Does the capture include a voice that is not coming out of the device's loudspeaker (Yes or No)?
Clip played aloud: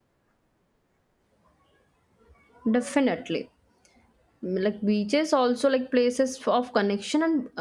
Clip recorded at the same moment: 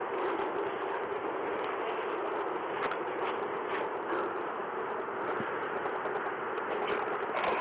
No